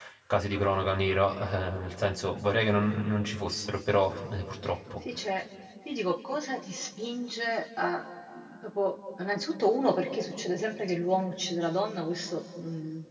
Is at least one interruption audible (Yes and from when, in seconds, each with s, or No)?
No